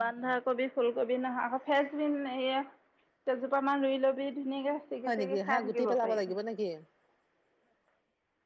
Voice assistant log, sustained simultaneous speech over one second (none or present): present